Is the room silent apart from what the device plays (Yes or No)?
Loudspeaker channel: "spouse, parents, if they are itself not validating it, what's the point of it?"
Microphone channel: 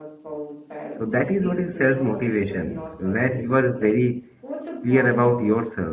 No